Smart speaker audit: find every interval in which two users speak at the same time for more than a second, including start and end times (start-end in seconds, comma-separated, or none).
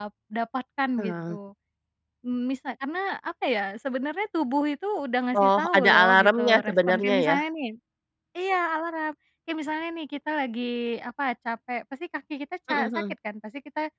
5.4-7.4